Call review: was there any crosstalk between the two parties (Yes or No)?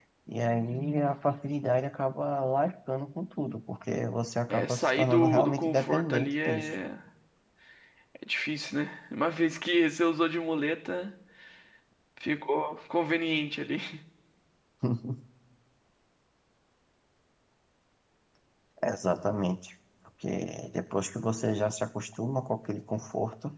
Yes